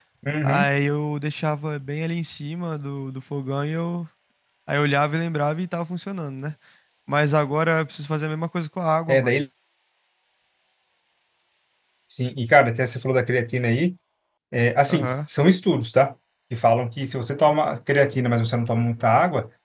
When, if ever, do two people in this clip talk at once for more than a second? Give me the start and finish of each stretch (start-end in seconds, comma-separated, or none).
none